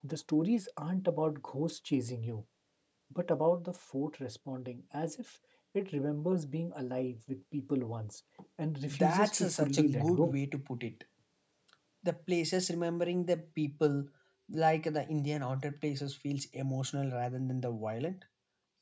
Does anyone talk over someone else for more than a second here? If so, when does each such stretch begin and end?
8.9-10.4

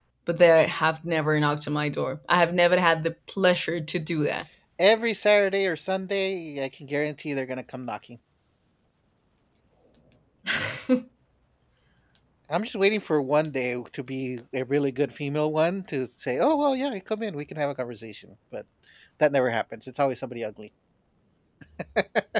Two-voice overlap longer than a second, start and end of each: none

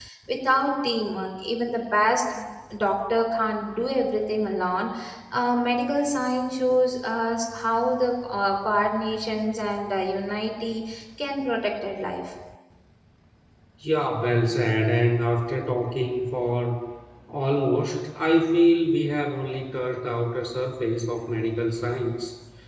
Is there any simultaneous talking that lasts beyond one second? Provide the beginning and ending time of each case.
none

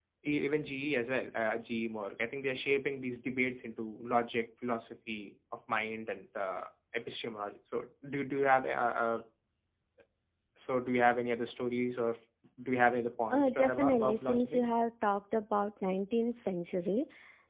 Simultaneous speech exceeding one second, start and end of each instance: 13.3-14.6

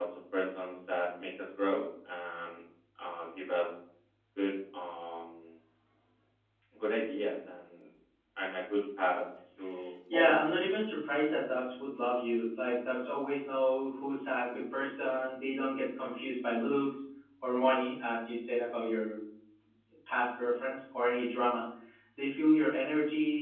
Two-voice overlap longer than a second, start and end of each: none

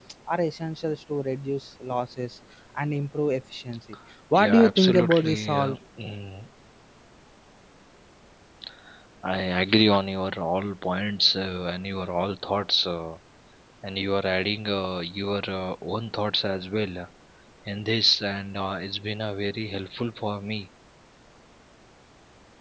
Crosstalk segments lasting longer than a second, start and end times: 4.3-5.8

